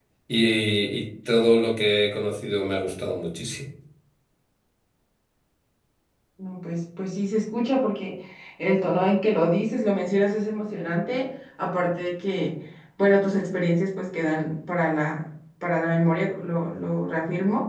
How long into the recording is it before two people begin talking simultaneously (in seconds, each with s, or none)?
none